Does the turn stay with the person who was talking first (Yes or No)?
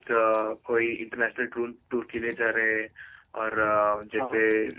Yes